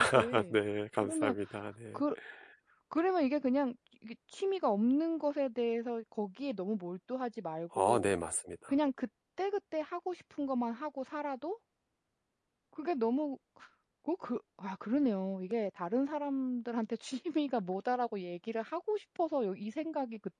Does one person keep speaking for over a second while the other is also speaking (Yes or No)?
No